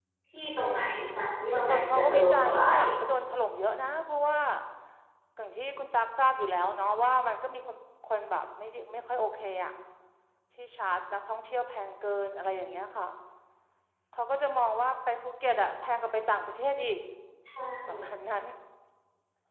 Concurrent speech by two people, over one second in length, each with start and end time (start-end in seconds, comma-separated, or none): 1.5-2.8